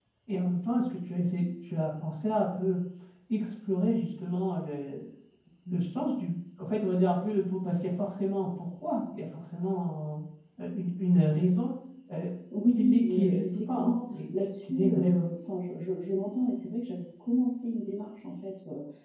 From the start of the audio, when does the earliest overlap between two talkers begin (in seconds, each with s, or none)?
12.8 s